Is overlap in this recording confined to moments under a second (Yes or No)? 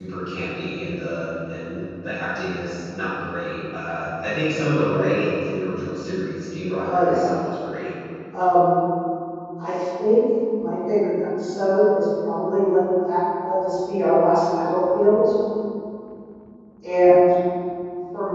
Yes